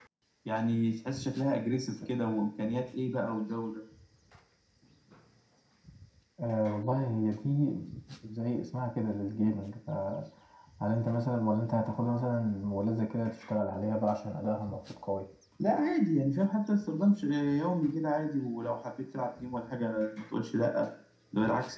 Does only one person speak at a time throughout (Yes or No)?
Yes